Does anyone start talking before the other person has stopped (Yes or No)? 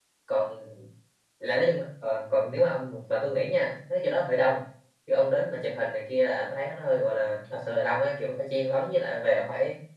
No